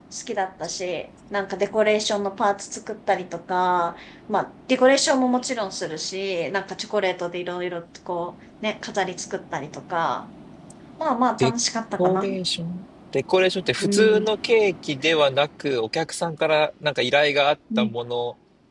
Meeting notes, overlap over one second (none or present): none